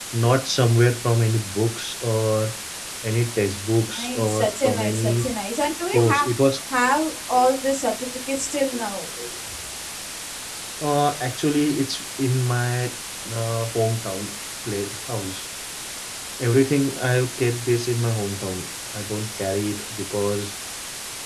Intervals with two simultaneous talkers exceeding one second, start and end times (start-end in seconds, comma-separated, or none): 4.0-5.3